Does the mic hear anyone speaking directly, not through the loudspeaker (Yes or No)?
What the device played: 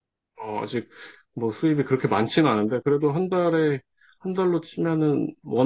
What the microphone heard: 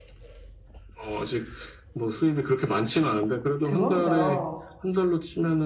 Yes